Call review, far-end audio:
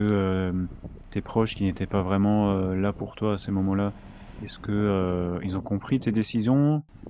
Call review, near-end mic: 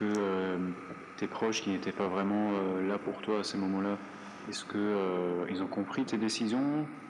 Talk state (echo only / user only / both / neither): echo only